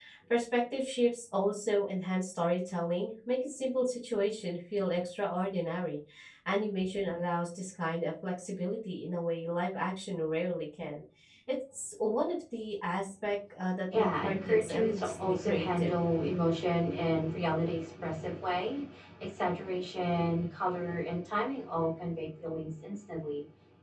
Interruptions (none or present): present